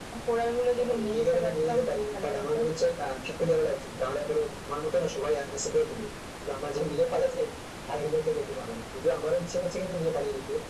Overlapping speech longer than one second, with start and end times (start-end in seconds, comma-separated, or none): 0.8-2.6